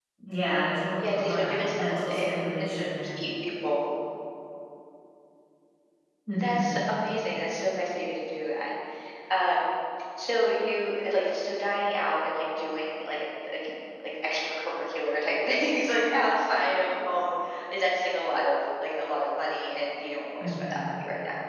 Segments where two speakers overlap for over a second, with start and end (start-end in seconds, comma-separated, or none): 1.0-2.9